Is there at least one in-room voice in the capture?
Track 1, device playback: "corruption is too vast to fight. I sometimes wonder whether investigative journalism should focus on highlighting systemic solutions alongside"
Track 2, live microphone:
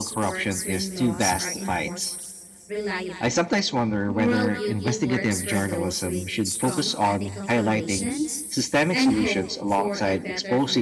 Yes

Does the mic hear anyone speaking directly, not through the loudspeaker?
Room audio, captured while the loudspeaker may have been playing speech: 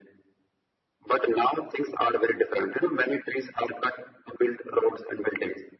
No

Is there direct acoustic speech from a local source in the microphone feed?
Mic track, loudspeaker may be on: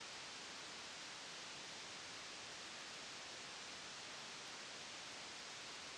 No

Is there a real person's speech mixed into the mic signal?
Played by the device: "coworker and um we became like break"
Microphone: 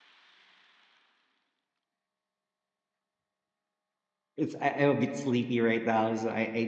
Yes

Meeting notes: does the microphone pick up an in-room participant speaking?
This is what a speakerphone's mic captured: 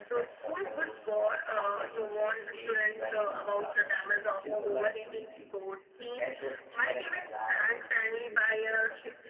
Yes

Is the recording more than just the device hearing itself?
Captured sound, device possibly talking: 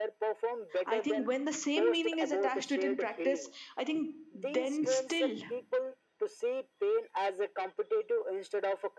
Yes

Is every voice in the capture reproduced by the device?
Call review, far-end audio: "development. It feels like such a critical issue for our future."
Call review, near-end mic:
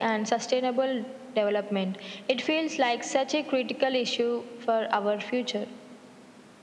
Yes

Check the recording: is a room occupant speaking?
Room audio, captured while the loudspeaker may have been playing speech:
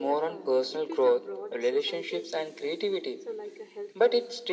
Yes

